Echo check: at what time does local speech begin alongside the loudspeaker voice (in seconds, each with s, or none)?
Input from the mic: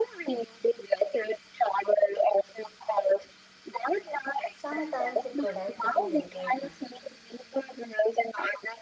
4.5 s